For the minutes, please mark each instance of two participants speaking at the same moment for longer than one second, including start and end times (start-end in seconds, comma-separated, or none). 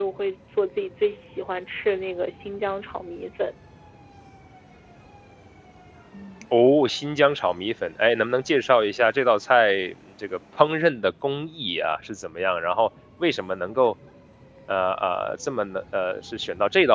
none